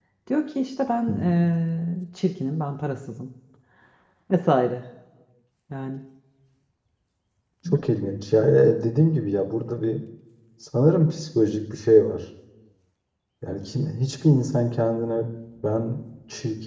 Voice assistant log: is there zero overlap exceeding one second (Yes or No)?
Yes